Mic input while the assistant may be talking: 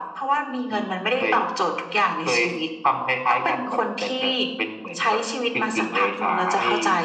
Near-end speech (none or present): none